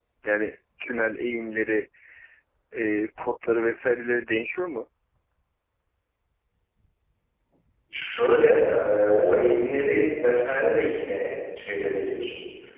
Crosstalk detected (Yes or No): No